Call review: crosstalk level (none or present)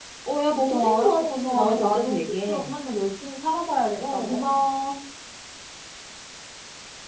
present